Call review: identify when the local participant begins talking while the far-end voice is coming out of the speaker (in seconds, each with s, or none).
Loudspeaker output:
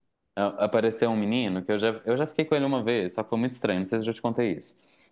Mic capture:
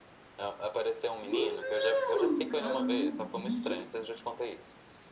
1.2 s